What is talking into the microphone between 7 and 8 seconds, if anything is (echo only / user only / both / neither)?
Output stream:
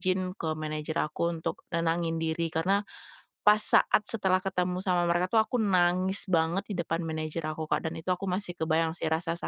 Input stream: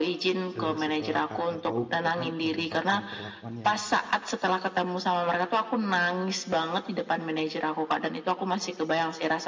echo only